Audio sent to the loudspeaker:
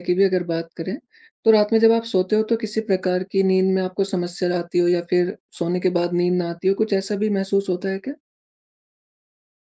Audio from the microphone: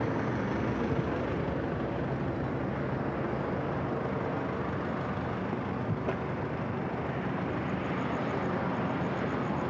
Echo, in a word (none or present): none